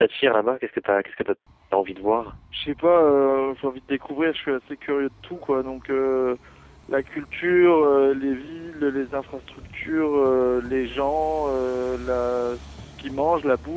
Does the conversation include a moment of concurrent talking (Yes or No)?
No